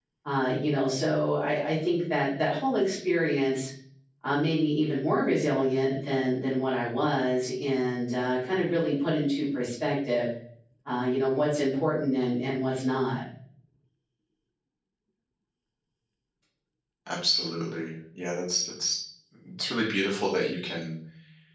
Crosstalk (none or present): none